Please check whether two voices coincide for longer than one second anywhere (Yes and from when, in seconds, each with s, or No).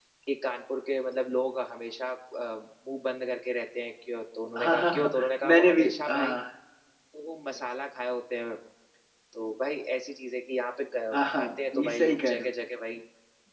Yes, from 4.6 s